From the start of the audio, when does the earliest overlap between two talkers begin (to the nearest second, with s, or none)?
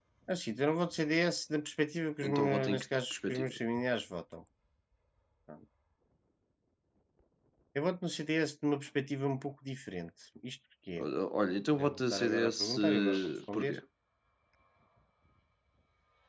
2 s